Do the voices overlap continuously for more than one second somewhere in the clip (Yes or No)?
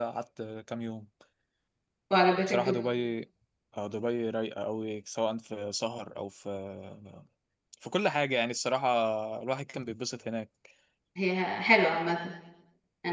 No